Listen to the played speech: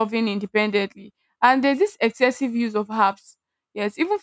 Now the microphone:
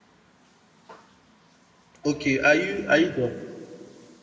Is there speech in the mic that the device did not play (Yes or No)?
Yes